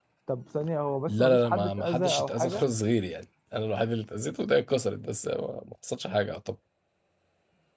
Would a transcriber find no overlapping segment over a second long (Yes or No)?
No